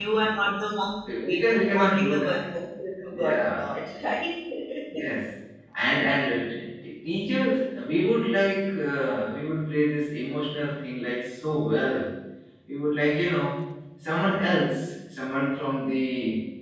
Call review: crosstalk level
present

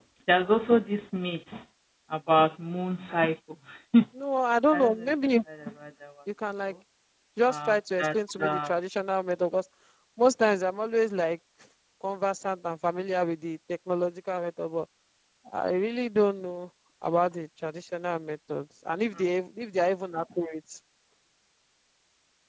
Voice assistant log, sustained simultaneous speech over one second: present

